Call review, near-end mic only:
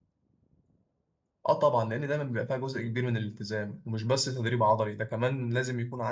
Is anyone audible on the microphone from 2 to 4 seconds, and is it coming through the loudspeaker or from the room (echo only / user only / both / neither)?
user only